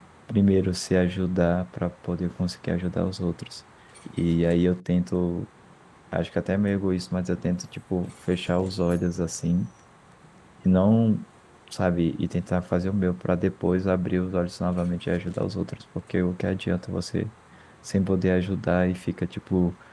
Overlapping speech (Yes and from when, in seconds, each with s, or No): No